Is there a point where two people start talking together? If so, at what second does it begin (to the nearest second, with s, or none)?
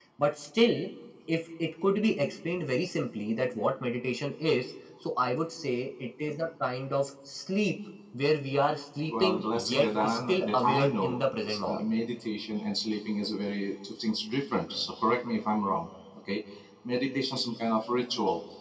9 s